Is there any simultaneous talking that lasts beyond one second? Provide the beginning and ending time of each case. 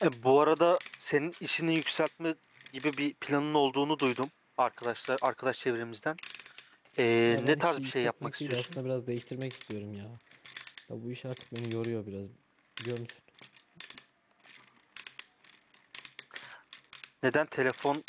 7.3-8.8

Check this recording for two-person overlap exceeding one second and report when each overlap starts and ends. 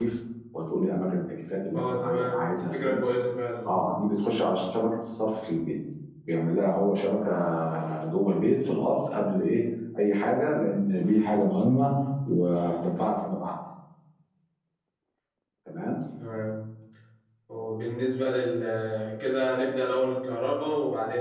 1.7-3.0

